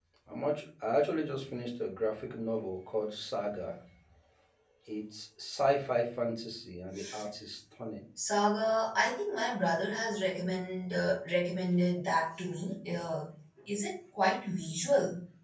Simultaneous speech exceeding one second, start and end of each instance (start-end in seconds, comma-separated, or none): none